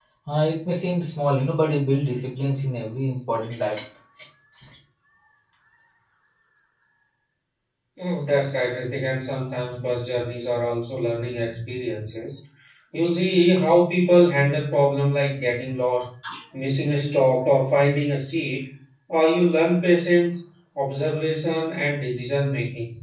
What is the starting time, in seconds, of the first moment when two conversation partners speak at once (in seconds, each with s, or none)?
none